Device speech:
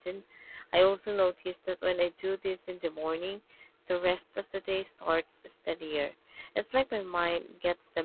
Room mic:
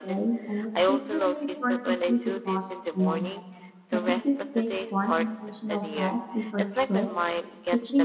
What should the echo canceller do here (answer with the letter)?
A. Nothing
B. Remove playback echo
B